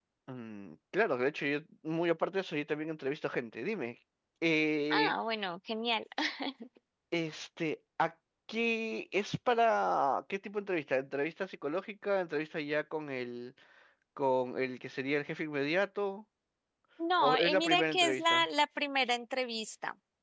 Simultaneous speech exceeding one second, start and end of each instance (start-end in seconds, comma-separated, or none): 17.2-18.4